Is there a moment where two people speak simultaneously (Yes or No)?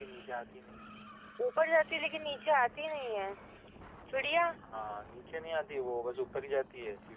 No